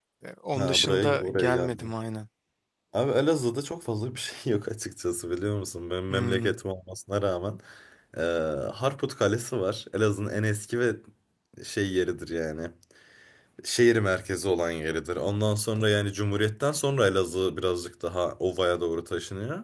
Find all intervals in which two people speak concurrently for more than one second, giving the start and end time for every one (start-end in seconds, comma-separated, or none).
0.6-1.9